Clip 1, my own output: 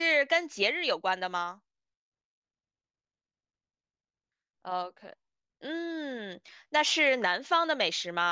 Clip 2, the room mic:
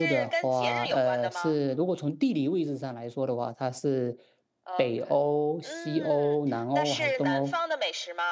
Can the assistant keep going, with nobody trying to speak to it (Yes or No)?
No